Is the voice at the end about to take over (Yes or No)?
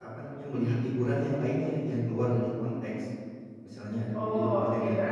Yes